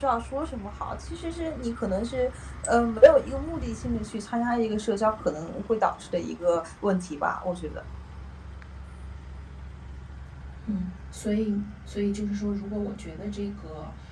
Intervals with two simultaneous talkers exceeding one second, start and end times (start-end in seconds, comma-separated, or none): none